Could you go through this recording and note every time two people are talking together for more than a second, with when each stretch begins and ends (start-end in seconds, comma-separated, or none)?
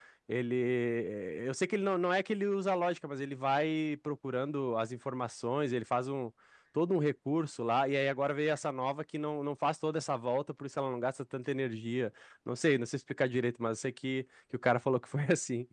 none